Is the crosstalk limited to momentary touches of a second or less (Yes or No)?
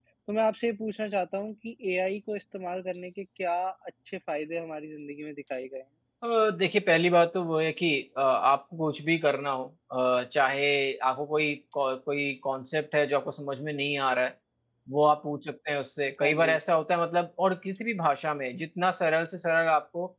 Yes